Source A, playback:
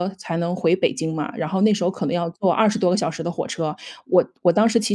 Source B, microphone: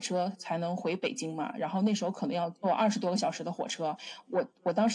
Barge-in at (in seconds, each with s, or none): none